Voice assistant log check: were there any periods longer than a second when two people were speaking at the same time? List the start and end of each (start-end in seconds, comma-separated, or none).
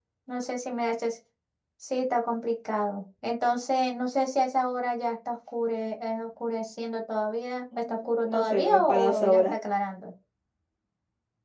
7.8-9.5